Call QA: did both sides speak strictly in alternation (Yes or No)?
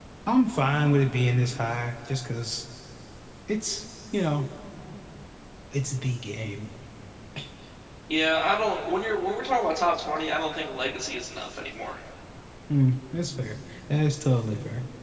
Yes